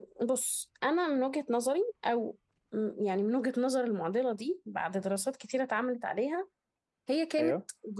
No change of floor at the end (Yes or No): Yes